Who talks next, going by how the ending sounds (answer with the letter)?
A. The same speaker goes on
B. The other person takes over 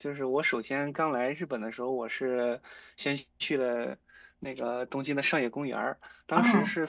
A